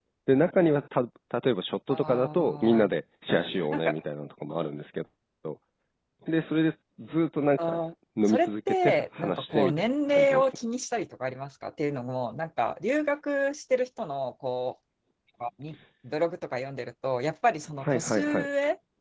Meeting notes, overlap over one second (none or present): present